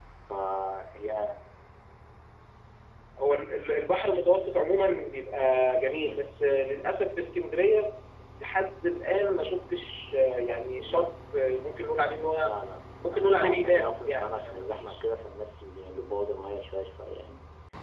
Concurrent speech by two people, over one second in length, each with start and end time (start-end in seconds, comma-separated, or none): 13.0-14.9